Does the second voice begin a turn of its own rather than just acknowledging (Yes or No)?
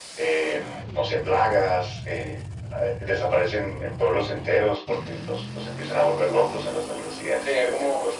Yes